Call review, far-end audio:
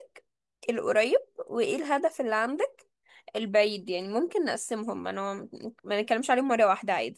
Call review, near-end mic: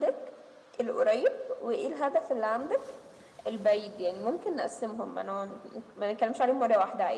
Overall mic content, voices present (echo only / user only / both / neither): echo only